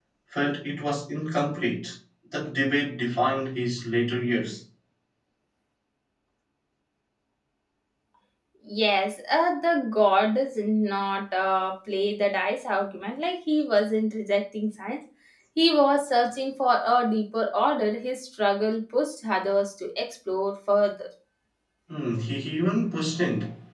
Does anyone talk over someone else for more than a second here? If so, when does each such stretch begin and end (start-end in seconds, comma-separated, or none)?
none